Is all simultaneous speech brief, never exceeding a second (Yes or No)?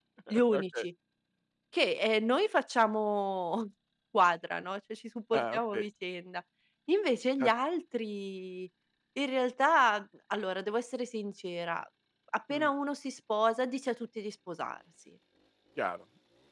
Yes